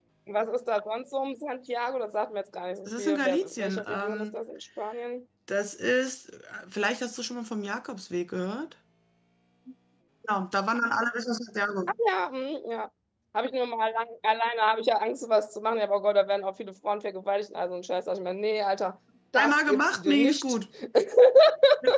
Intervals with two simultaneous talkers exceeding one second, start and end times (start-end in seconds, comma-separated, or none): 2.9-4.3, 19.4-20.6